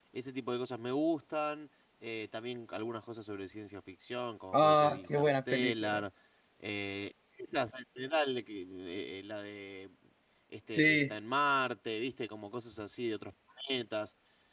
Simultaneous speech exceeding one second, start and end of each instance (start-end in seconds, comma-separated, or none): 4.5-6.0